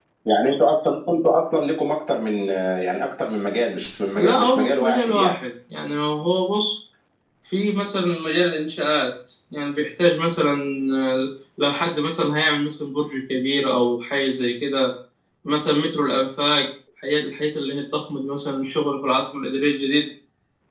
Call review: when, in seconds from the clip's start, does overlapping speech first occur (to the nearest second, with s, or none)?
4 s